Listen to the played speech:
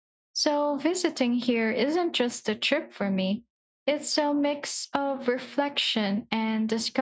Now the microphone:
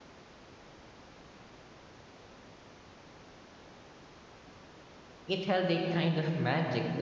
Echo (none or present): none